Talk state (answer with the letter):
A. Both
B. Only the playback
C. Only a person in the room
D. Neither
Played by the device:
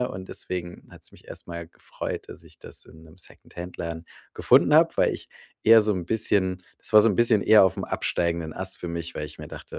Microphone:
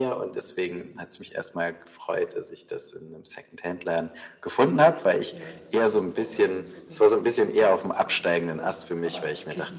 A